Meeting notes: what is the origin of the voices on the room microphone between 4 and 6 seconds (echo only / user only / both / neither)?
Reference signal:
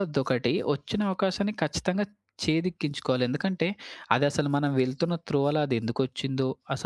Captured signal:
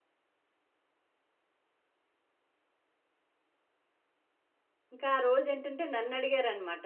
user only